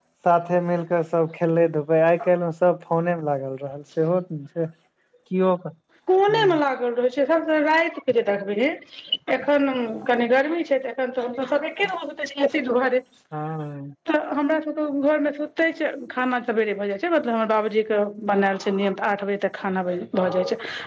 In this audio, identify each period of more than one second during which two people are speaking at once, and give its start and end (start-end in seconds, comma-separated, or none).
none